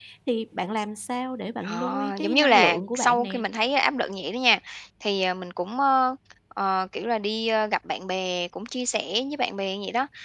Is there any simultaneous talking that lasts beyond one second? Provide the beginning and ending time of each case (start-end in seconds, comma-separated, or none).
1.6-3.4